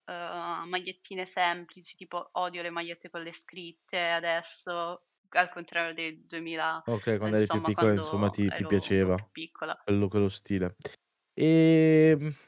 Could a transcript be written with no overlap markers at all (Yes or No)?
No